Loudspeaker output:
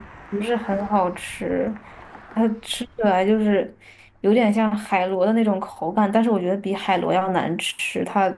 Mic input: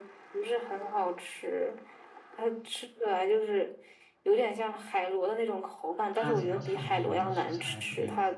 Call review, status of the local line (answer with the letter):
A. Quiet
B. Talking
B